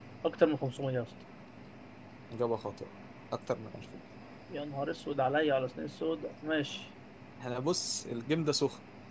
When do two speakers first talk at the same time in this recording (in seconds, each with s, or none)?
none